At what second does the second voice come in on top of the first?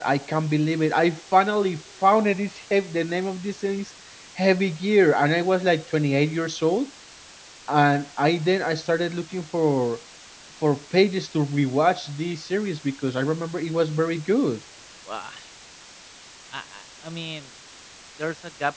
none

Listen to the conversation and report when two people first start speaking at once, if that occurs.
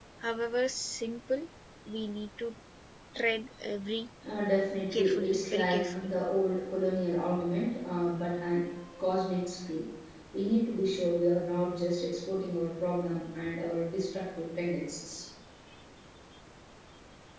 4.9 s

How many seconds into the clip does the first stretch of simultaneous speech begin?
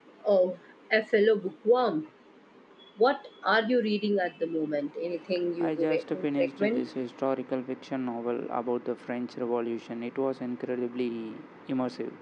5.6 s

